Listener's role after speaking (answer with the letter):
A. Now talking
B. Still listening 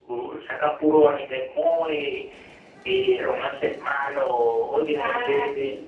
B